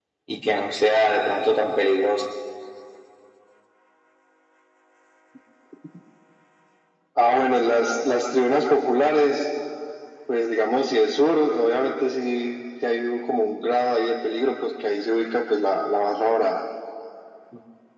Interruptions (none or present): none